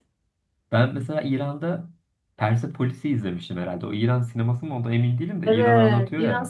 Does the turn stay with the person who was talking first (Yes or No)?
No